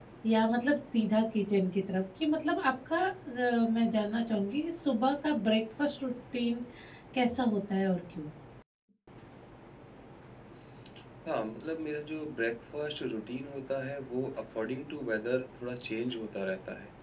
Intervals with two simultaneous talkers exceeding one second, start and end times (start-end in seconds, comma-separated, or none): none